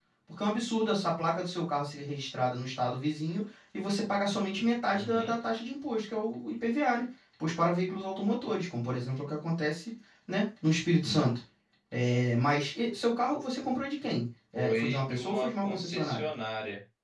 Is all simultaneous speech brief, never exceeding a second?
No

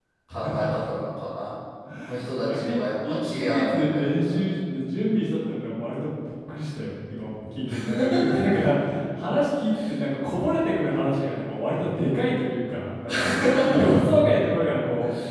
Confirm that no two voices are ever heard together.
No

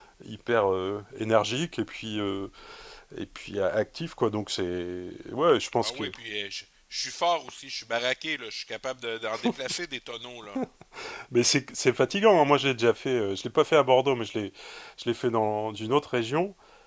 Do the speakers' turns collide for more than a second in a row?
No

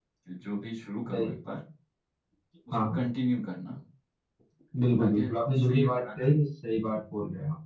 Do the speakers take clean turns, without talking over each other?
No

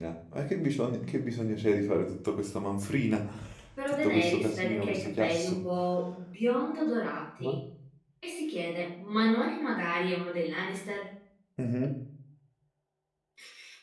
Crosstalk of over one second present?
Yes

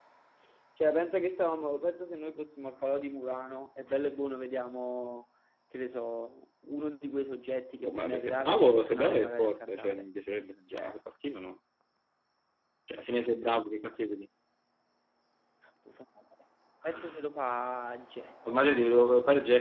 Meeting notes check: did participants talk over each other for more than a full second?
Yes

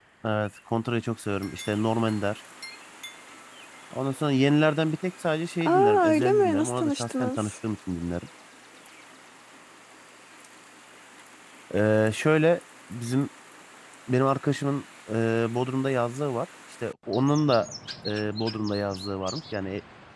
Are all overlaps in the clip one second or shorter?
No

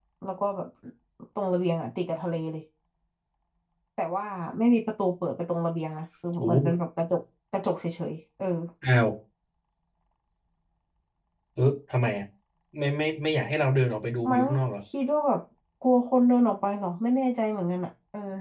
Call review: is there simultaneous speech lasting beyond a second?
No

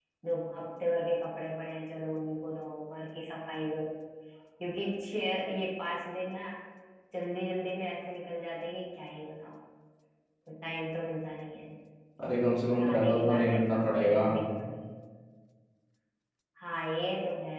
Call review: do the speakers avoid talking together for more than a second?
No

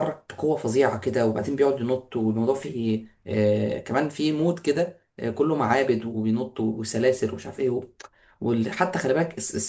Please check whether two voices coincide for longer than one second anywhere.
No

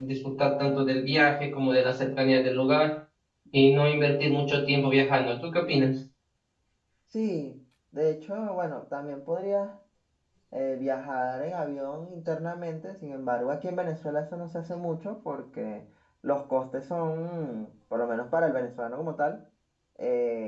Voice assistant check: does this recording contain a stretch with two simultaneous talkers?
No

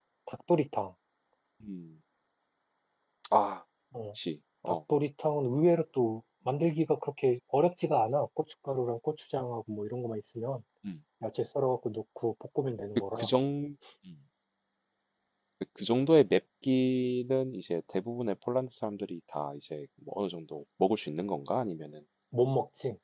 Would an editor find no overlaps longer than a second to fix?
Yes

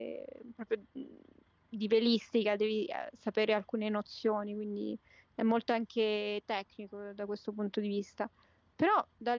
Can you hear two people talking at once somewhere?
No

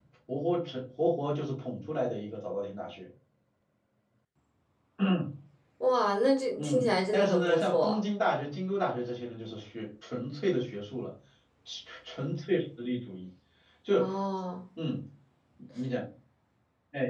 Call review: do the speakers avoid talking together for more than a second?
No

